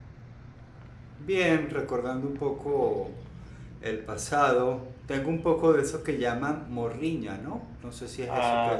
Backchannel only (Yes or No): No